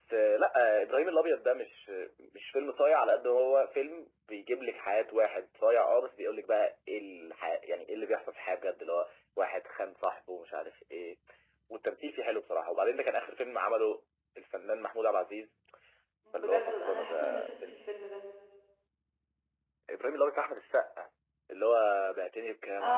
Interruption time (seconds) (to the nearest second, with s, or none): 16 s